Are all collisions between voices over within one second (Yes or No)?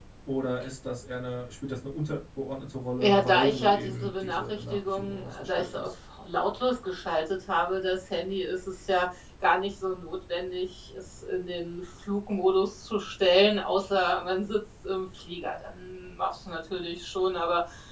No